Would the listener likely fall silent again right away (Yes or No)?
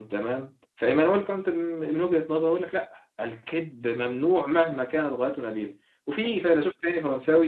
Yes